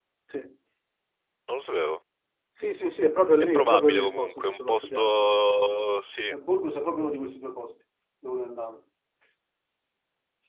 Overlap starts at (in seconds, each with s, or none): 3.5 s